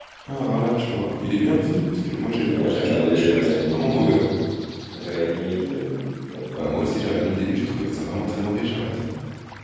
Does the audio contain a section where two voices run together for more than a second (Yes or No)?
Yes